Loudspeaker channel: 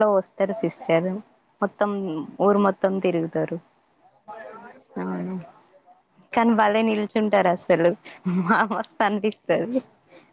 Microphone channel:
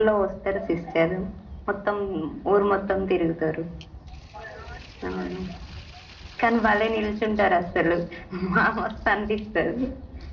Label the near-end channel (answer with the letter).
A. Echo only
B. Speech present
A